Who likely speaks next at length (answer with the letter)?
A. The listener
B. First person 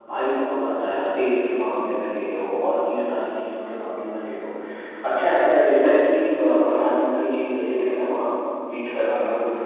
B